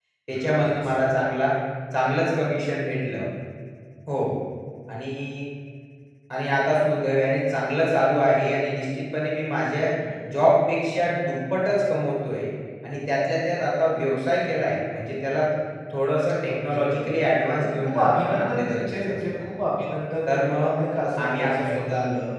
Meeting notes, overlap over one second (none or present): present